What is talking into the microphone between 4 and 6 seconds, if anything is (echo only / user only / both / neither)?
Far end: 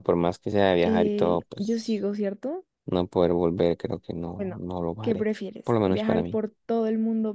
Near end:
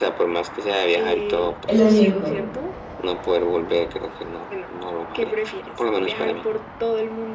echo only